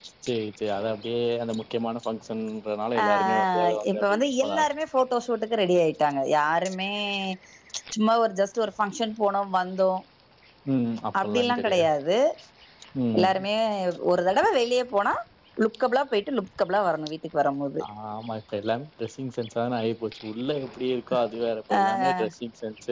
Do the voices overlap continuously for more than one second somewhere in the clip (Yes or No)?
Yes